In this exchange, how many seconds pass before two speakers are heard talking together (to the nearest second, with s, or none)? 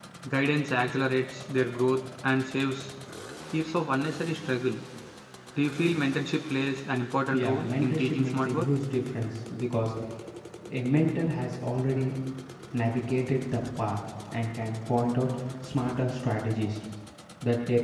7 s